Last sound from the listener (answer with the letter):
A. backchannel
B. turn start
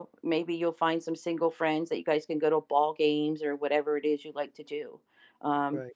A